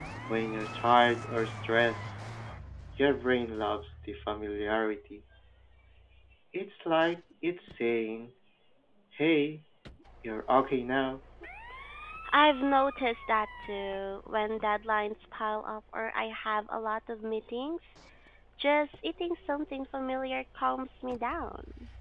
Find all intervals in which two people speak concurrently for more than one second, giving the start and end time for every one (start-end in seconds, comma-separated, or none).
none